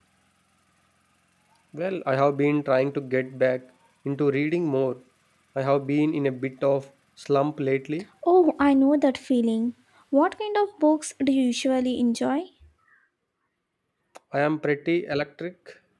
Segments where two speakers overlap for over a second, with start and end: none

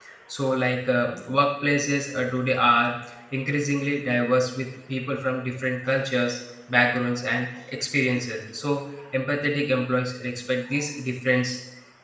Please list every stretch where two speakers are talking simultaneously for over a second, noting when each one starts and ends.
none

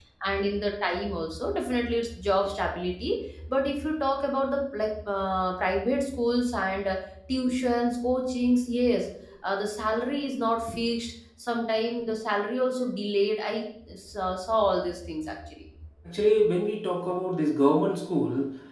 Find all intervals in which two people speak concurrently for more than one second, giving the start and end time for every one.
none

